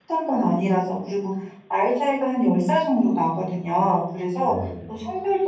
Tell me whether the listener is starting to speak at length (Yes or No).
No